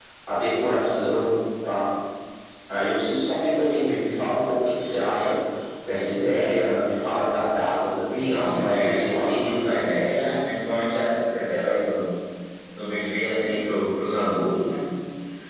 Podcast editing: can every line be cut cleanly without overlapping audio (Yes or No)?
No